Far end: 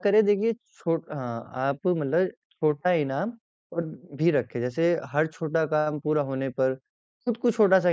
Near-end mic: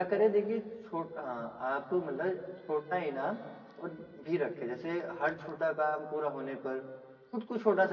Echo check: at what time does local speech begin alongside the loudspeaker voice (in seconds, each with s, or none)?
none